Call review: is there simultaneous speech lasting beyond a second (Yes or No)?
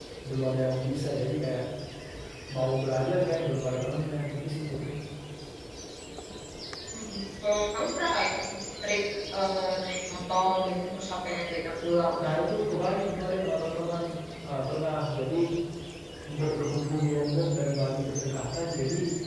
No